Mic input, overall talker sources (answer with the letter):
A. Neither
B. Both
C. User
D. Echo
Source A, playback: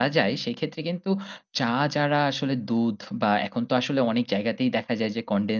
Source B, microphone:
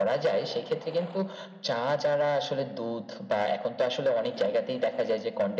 D